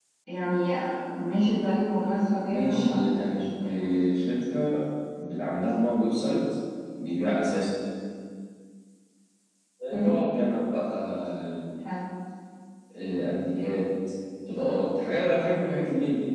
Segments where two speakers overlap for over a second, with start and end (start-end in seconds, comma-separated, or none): 2.5-4.0